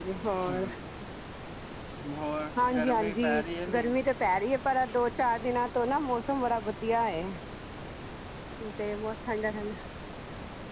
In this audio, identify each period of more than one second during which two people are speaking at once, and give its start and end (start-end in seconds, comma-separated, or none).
2.7-3.9